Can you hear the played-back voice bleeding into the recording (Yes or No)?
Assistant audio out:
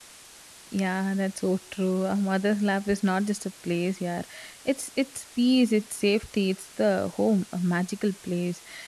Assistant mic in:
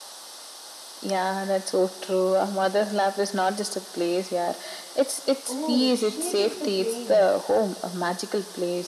Yes